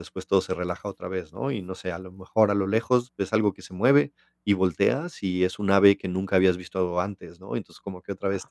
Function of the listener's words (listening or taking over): listening